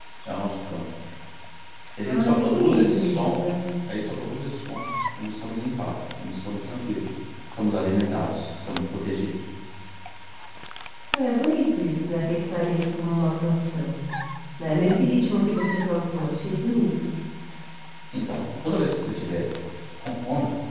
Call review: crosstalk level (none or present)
present